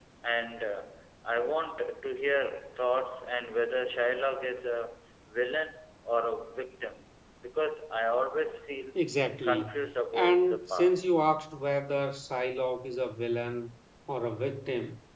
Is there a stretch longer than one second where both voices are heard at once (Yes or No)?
Yes